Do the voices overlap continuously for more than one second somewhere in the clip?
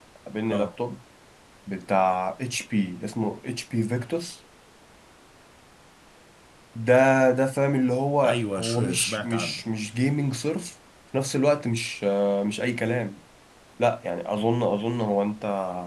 Yes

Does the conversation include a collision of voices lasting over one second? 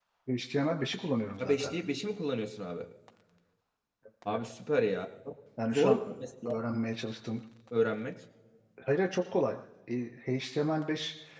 No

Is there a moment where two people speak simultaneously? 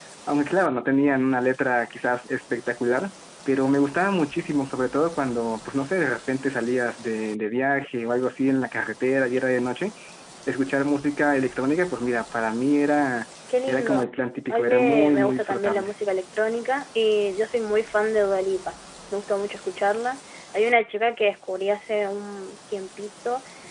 Yes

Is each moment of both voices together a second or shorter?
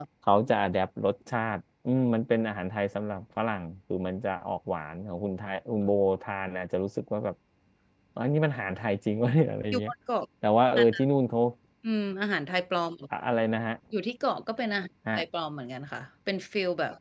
Yes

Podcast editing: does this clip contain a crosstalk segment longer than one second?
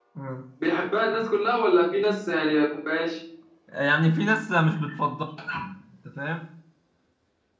No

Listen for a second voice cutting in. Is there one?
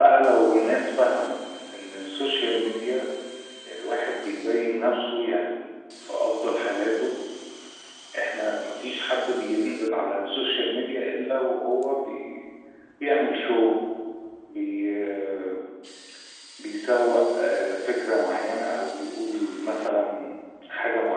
No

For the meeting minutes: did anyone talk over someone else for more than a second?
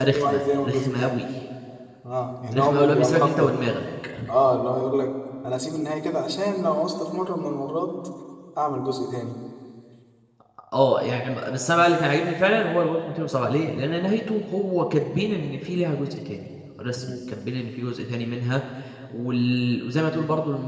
Yes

